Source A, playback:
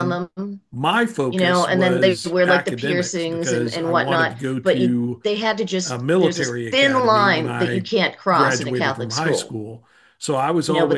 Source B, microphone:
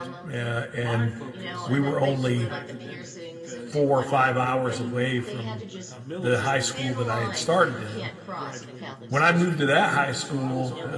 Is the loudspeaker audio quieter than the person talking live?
Yes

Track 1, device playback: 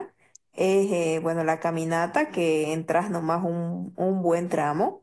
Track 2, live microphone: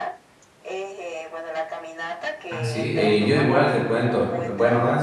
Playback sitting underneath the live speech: Yes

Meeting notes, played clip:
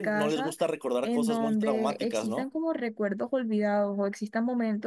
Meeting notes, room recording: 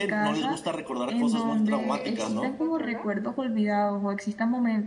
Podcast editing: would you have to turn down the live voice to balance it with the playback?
No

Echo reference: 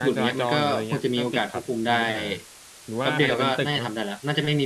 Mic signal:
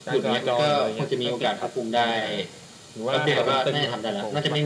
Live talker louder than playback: No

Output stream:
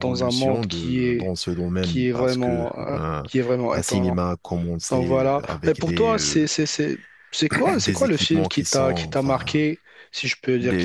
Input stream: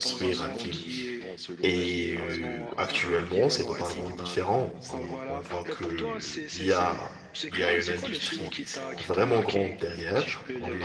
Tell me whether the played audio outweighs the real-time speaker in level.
No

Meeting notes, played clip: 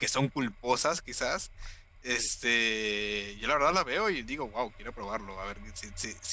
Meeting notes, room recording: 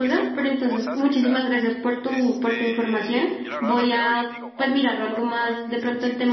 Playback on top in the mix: No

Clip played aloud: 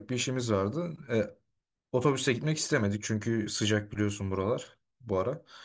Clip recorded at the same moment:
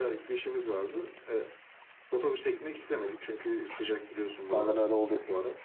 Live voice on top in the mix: Yes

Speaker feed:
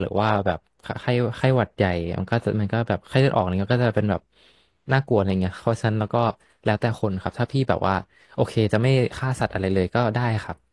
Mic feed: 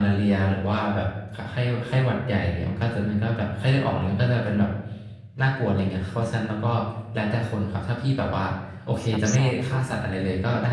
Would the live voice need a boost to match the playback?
Yes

